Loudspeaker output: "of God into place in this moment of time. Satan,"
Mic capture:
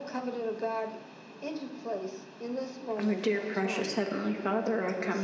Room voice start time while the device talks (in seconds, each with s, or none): 3.0 s